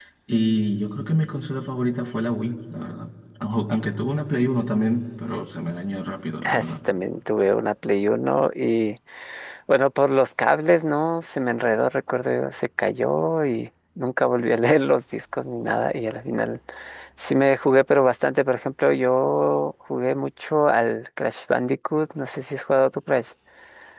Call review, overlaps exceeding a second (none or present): none